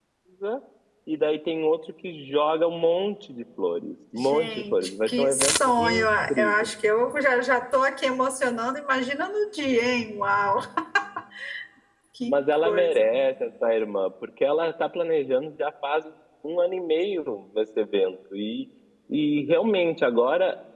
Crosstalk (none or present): present